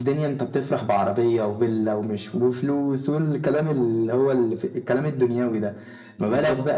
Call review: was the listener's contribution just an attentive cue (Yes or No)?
Yes